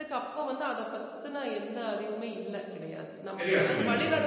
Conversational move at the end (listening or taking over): listening